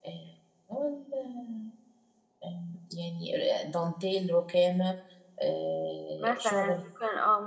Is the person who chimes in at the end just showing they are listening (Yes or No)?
No